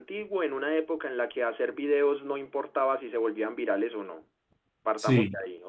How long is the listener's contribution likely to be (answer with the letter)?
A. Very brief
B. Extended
A